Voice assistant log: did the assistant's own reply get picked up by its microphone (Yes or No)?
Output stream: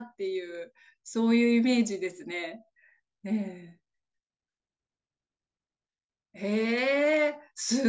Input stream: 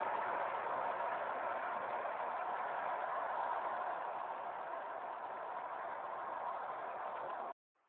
No